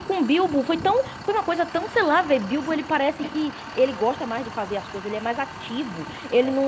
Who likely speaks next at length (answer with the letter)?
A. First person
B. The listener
A